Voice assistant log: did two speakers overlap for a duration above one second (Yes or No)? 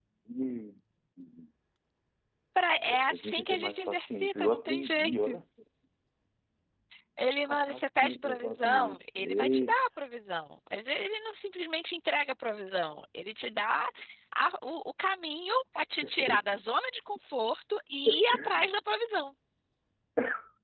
Yes